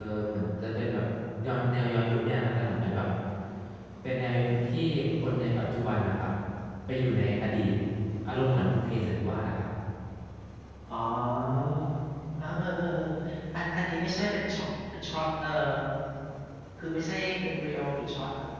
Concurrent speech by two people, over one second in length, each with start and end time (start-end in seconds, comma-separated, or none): none